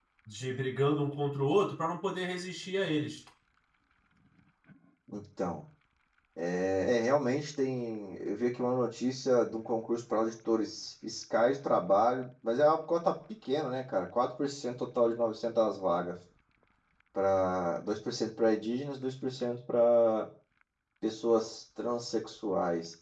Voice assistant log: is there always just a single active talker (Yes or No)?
Yes